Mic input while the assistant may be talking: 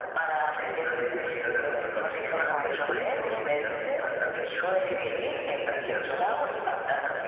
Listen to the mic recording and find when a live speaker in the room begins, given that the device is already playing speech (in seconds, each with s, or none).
2.1 s